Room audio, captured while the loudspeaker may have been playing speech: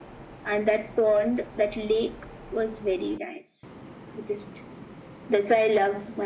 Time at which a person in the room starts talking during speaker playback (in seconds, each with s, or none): none